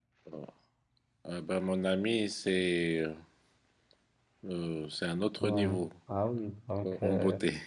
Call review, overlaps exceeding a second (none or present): none